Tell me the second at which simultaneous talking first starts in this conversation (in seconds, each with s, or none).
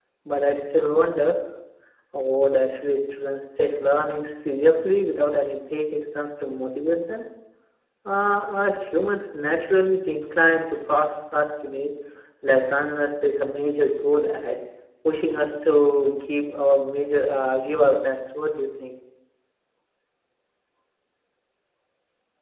none